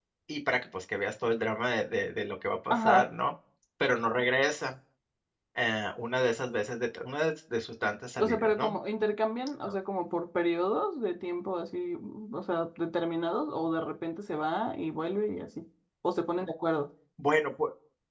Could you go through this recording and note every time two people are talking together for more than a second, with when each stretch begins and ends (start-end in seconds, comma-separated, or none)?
none